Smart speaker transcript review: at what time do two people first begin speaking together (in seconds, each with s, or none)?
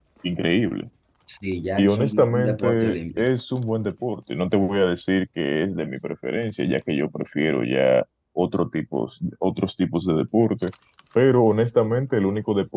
1.8 s